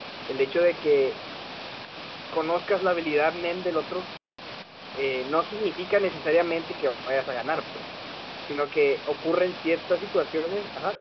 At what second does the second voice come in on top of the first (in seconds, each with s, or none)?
none